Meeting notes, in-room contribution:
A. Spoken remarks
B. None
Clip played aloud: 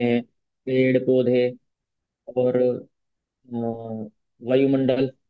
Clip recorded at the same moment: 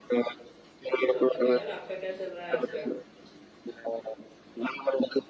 A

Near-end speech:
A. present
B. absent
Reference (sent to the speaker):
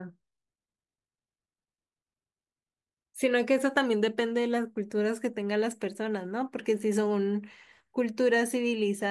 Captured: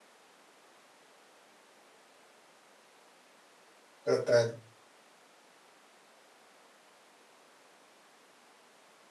A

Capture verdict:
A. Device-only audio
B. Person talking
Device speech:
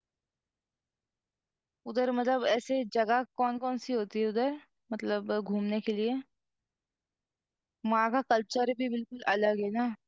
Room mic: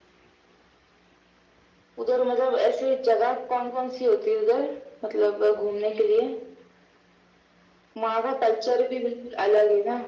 A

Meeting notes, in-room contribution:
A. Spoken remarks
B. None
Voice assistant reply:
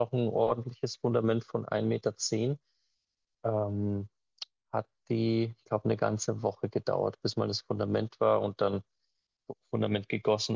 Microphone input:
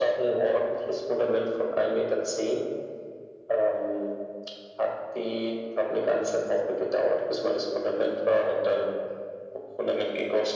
B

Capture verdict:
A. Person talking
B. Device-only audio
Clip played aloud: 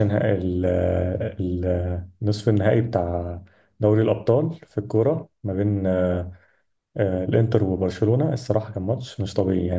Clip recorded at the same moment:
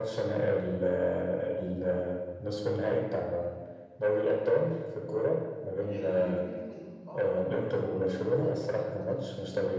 A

